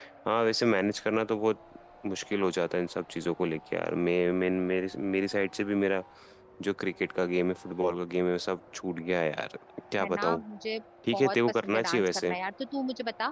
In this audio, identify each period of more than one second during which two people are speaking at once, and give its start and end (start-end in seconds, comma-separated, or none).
11.1-12.3